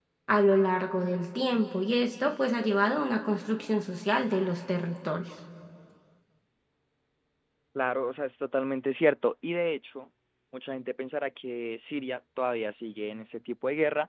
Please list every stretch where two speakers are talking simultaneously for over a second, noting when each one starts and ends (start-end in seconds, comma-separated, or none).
none